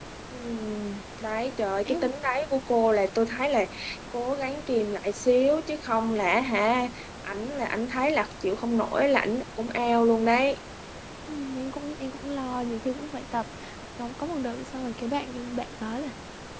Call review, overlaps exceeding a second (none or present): none